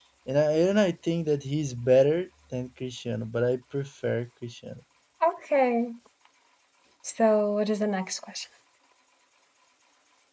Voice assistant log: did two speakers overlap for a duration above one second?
No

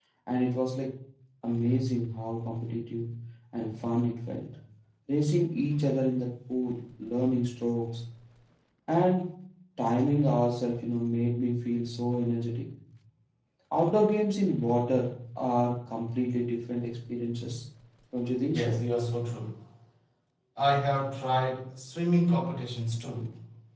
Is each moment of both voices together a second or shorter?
Yes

